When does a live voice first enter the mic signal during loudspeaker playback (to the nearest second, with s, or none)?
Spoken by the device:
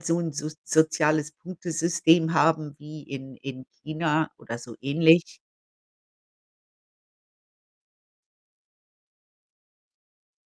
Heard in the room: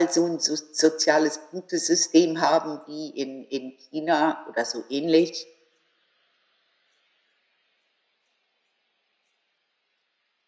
none